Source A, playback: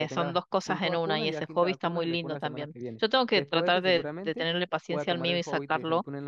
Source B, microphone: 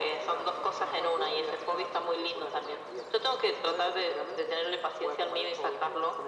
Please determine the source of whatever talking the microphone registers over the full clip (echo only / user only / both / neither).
echo only